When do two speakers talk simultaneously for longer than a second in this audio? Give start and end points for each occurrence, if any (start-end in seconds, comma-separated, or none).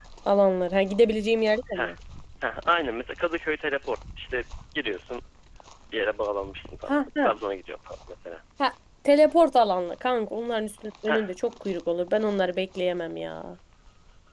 none